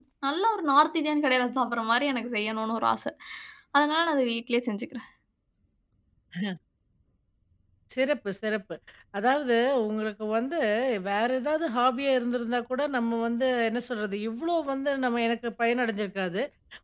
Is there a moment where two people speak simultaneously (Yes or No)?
No